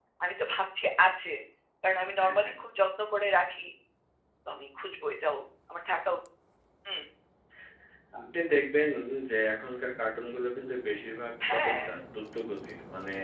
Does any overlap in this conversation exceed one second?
No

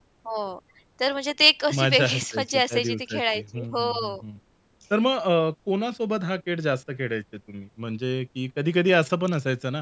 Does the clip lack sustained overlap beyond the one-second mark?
No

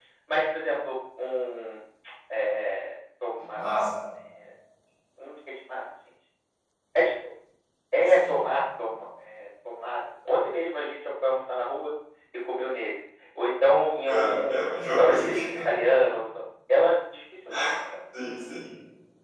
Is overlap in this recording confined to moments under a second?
No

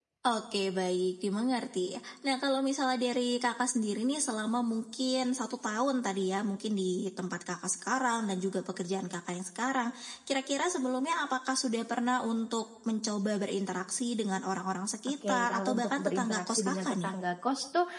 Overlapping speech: Yes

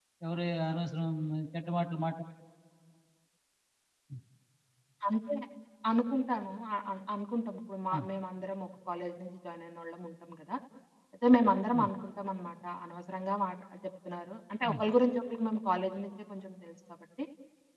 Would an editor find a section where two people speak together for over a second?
No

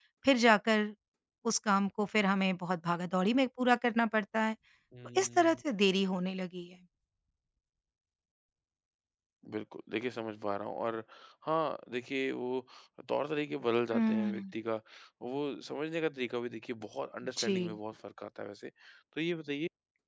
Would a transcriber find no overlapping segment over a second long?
Yes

